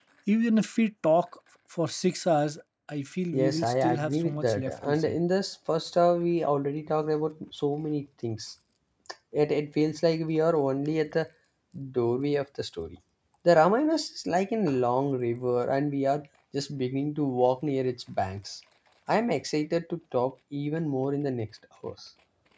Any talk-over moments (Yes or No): Yes